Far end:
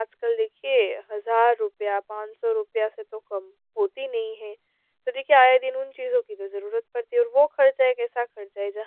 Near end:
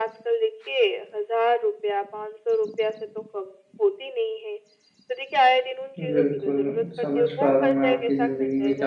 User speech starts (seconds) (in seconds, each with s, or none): 6.0 s